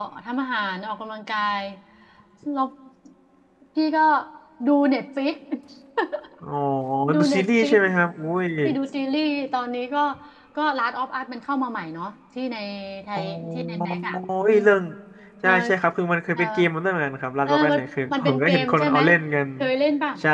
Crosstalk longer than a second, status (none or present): present